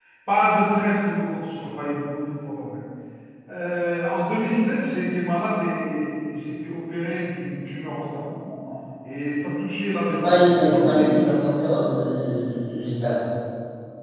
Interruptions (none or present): present